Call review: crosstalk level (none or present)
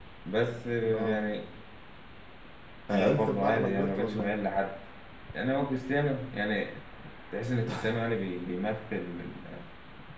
present